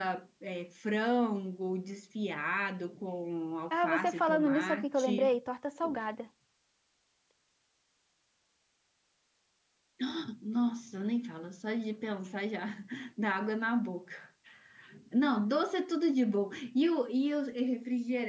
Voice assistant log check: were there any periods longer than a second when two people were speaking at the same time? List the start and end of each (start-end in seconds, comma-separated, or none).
3.7-5.4